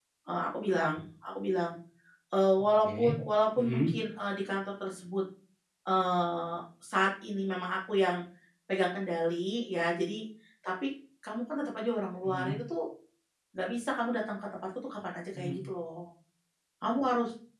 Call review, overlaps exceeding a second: none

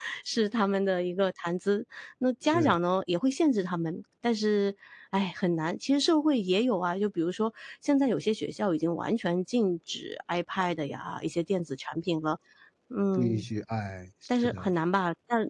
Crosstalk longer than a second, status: none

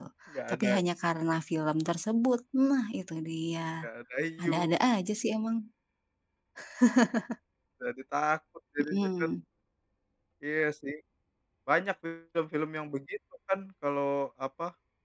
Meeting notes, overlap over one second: none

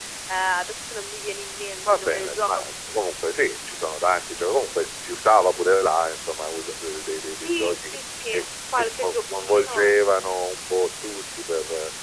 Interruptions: present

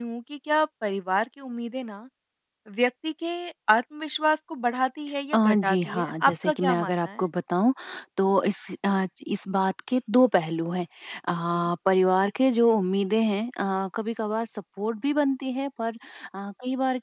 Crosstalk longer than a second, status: present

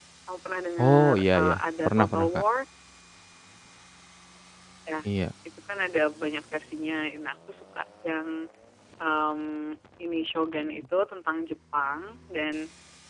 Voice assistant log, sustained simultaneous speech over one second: present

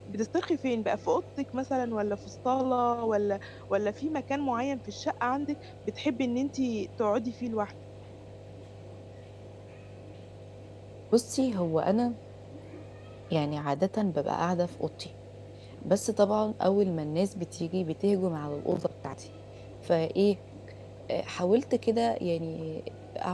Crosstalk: none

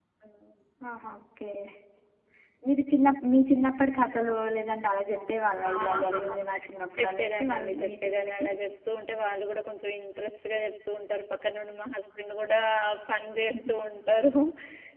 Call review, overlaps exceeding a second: present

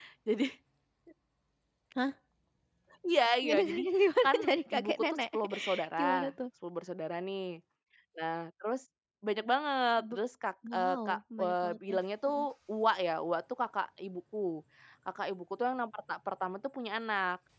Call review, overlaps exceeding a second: present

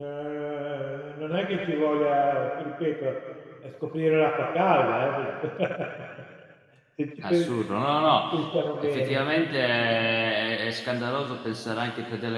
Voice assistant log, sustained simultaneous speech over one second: none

